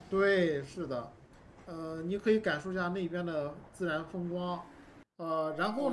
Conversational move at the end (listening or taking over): taking over